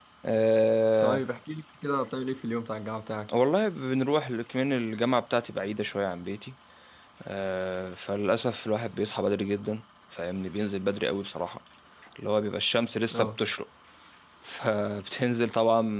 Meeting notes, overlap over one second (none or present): none